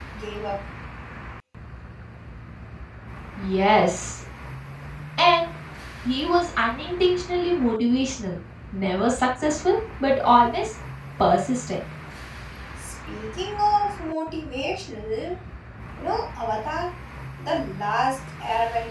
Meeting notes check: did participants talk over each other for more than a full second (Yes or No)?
No